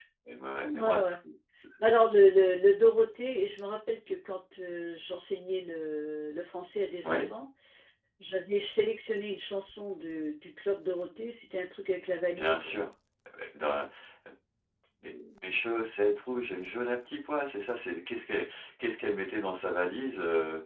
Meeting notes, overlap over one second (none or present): none